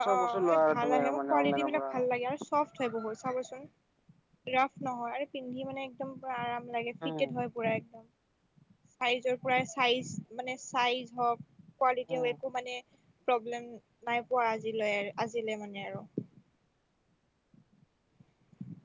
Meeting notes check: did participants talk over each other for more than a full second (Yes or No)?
Yes